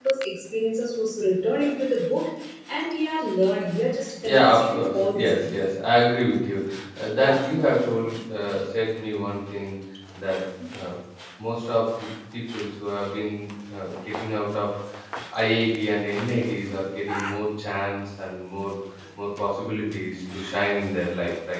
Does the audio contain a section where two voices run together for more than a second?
Yes, from 4.2 s

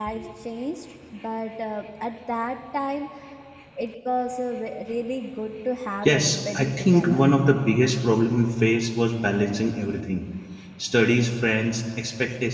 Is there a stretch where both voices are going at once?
Yes, from 6.0 s

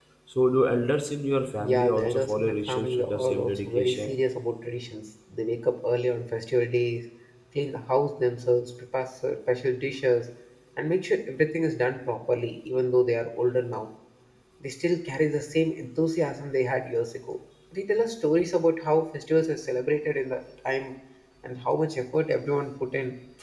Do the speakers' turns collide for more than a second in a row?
Yes, from 1.6 s

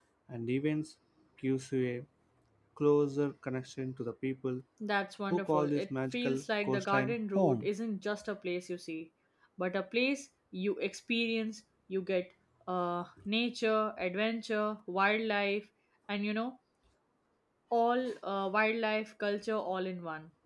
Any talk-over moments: Yes, from 5.3 s

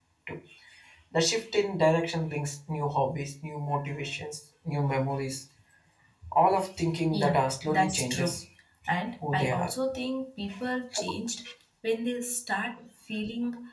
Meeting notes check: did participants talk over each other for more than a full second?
Yes, from 7.1 s

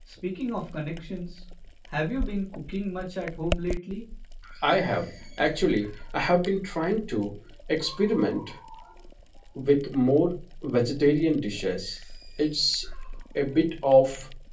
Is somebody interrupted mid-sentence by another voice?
No

